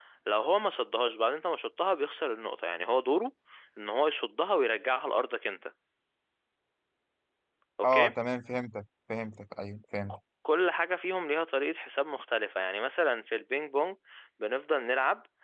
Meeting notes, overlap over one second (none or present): none